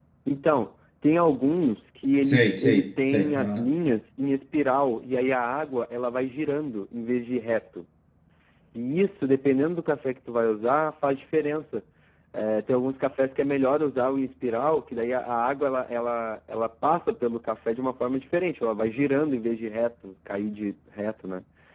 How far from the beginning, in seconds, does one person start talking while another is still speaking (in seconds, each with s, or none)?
2.2 s